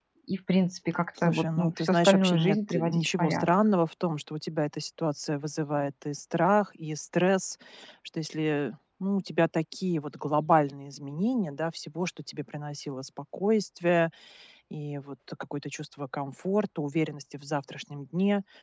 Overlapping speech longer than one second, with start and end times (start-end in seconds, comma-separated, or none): 1.2-3.5